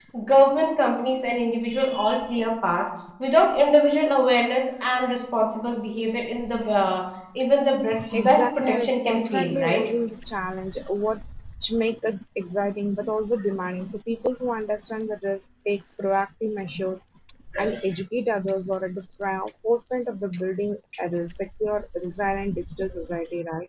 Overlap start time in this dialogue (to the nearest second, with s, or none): 8 s